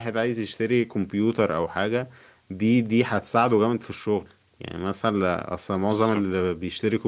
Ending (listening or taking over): listening